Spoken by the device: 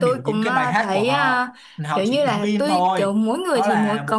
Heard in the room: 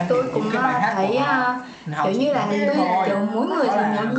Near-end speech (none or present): present